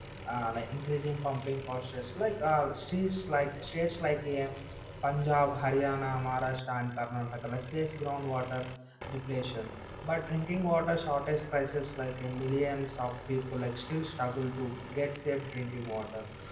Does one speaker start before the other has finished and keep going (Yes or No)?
No